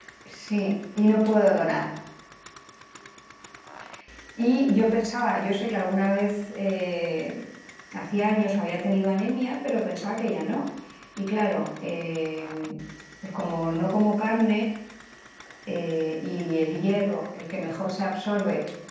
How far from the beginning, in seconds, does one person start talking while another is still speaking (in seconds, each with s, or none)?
none